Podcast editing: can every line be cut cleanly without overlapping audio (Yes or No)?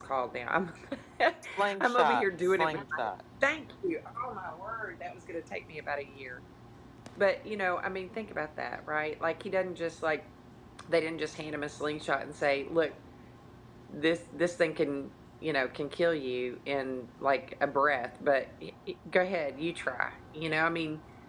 No